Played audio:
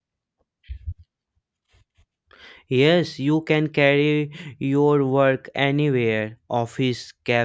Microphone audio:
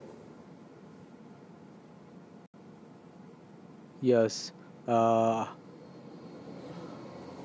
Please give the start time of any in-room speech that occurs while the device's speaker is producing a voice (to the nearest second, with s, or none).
4 s